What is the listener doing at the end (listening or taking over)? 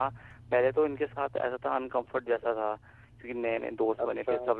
listening